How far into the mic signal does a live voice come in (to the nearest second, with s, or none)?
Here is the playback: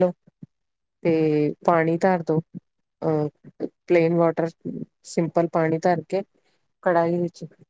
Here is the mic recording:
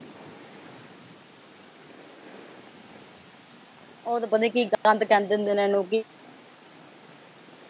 4 s